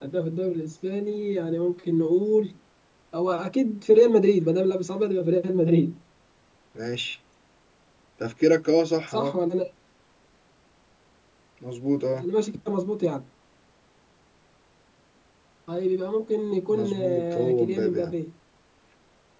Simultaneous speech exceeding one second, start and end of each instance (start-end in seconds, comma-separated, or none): 16.7-18.1